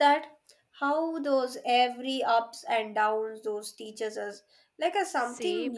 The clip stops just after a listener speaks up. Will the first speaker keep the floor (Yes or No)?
No